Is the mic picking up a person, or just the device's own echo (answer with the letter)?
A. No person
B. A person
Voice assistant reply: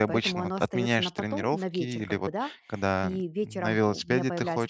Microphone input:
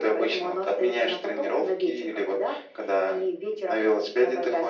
A